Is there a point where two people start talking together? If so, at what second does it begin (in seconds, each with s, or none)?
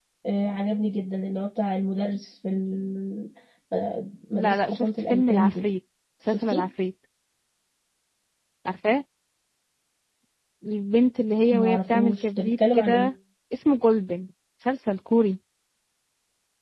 4.3 s